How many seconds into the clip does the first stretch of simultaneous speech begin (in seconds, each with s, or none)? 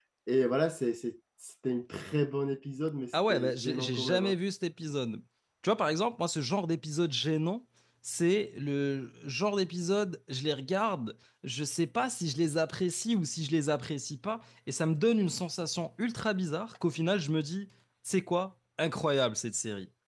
3.1 s